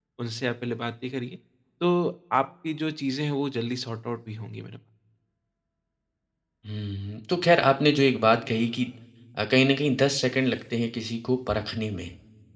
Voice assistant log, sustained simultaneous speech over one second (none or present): none